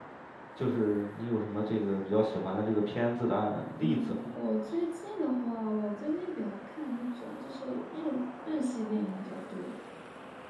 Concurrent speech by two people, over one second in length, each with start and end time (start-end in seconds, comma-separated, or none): none